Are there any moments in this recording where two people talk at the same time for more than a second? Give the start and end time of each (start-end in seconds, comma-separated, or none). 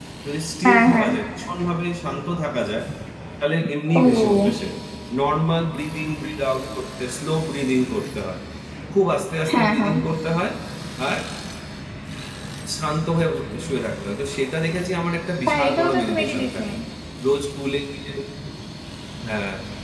15.5-16.7